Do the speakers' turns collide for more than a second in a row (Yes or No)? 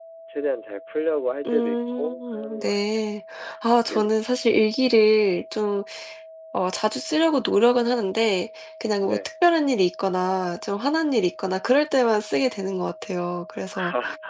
Yes